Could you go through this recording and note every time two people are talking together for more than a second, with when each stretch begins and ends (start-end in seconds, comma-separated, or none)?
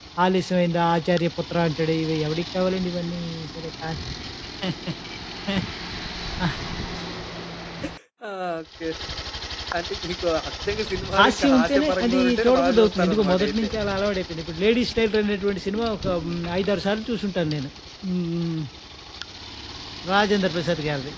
11.2-13.7